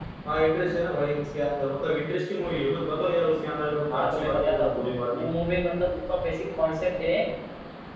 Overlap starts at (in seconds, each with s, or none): 3.9 s